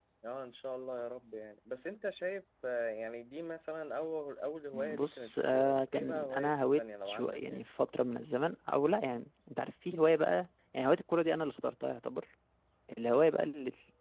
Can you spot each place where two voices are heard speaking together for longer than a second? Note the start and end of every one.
4.7-7.6

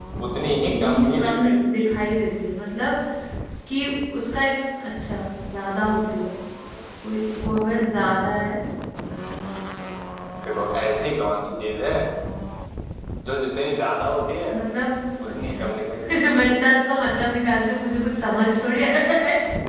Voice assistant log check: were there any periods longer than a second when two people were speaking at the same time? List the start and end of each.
0.7-1.9

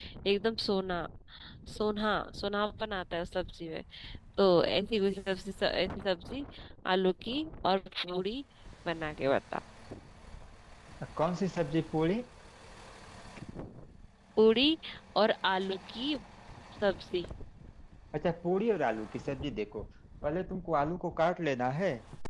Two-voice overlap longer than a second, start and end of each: none

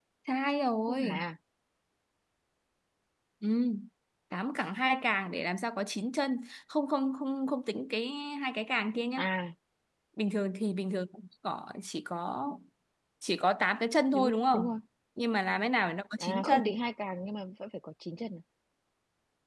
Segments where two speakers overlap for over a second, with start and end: none

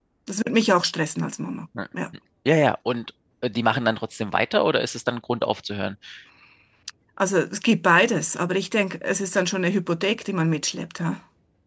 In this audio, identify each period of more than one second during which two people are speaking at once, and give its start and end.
none

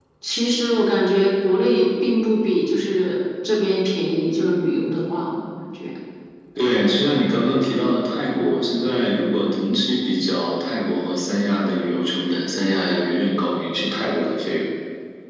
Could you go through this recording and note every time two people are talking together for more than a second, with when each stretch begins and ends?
none

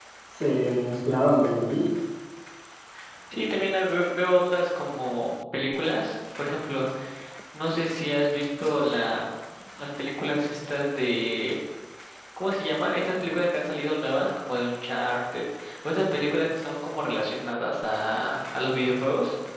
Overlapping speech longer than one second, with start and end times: none

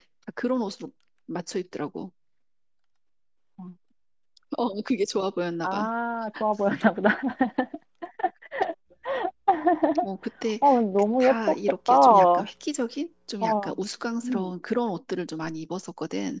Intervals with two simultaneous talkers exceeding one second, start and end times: 11.2-12.5

